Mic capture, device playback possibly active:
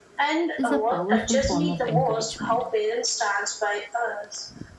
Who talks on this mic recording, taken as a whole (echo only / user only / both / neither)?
both